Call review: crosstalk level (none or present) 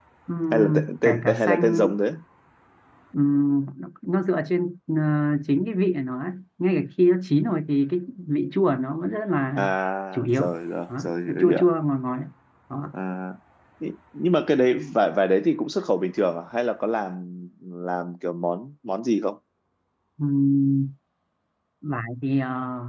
present